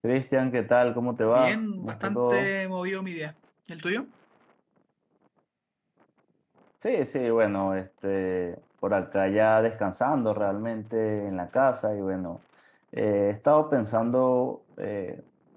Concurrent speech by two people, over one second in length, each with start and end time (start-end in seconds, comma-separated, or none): 1.3-2.5